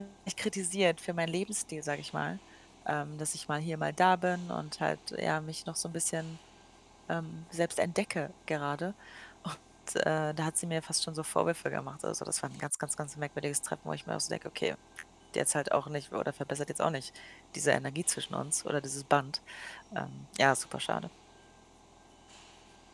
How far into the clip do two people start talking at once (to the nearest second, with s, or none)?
none